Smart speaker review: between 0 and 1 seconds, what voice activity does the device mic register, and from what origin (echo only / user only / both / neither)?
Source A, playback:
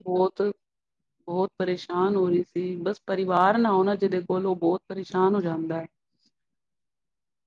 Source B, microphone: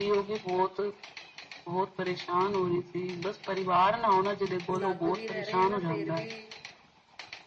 echo only